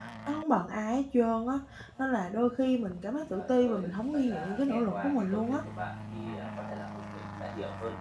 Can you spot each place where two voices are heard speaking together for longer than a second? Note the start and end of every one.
3.3-5.6

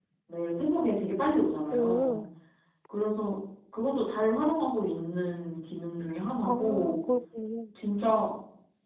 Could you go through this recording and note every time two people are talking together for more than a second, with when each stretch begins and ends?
none

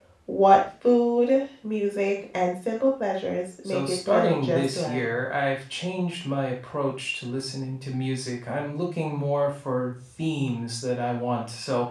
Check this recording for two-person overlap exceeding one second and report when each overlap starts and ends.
3.6-5.0

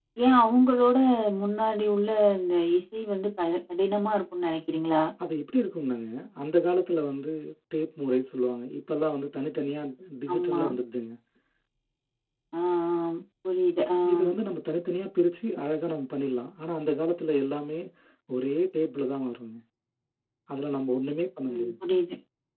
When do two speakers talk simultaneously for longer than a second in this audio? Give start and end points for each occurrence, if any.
none

